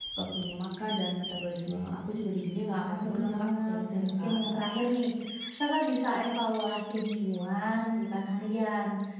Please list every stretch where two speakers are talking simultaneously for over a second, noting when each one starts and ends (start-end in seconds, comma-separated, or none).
2.8-4.4